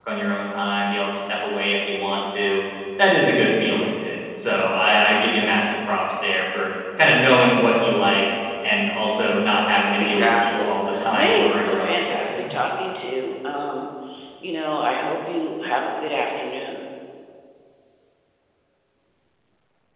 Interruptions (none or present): present